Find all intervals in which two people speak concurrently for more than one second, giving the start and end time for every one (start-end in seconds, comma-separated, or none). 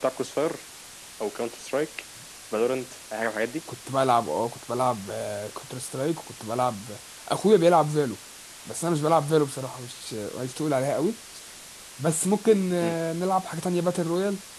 none